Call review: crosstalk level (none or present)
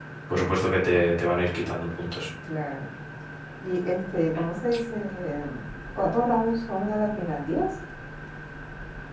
none